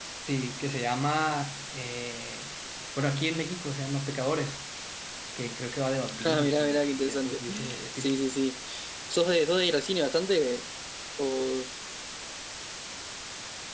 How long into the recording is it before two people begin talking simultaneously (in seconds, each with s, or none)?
6.2 s